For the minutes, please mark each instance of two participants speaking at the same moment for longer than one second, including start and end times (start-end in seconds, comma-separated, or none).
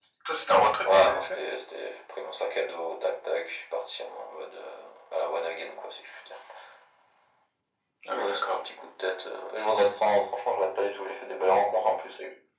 none